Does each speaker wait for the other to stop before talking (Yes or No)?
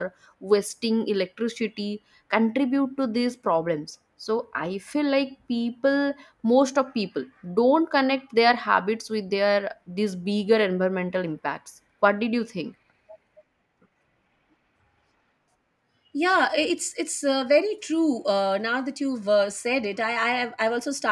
Yes